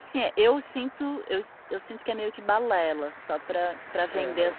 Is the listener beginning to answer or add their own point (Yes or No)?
Yes